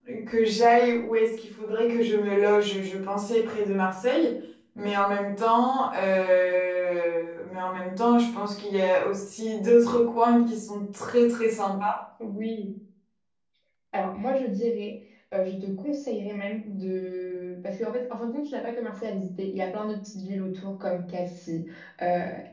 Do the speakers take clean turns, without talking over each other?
Yes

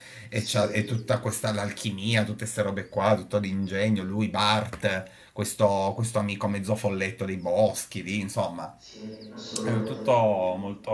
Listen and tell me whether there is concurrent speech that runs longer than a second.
No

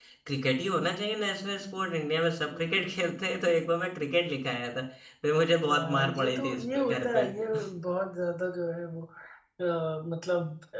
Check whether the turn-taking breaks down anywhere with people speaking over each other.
Yes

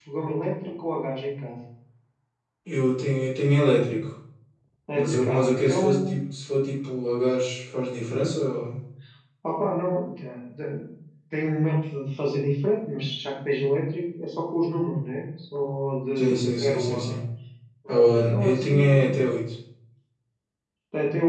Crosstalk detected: Yes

